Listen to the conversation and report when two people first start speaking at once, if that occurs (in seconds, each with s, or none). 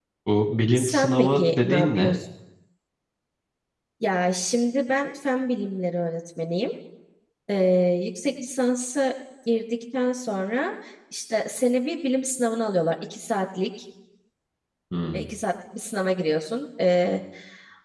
0.8 s